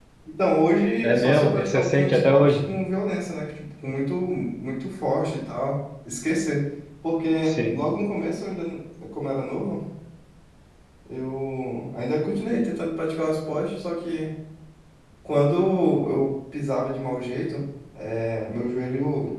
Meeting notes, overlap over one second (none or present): present